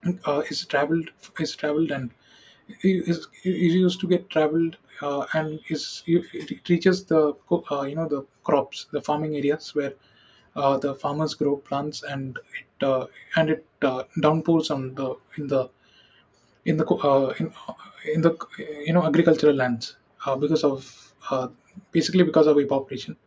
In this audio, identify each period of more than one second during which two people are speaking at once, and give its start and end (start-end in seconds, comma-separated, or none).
none